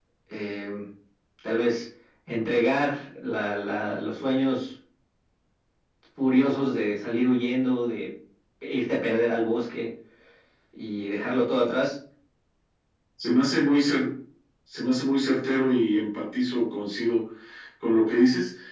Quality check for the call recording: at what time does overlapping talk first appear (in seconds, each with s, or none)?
none